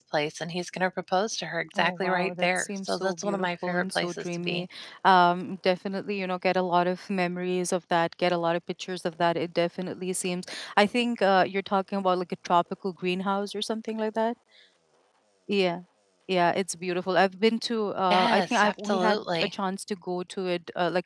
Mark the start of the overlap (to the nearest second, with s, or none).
2 s